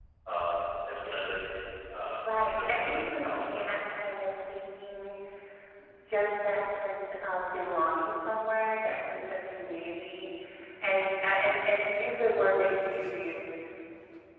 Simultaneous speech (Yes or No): Yes